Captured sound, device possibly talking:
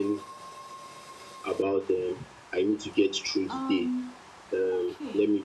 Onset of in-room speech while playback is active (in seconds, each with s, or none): 3.5 s